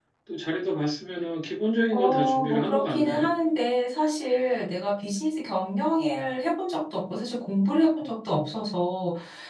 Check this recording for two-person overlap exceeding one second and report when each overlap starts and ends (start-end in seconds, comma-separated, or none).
1.9-3.3